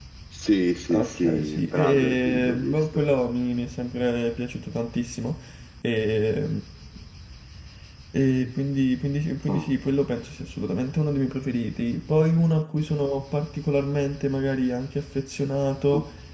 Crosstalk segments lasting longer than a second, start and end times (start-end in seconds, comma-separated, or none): 0.9-2.8